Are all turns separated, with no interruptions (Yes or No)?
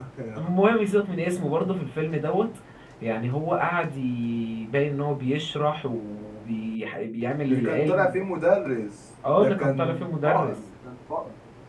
No